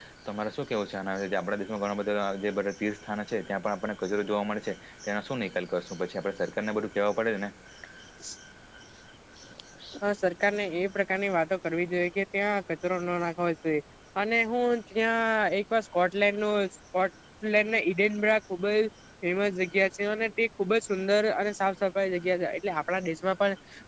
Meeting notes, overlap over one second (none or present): none